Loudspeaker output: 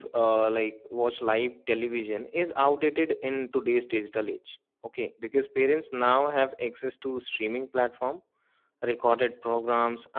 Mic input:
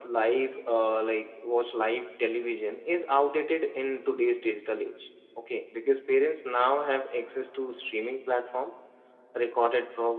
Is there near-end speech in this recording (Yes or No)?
No